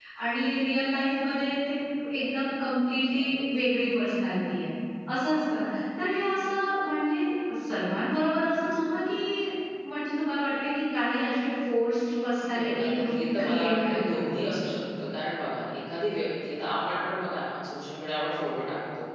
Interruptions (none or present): present